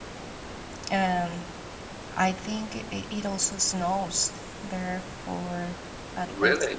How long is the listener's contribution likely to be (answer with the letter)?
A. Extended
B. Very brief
B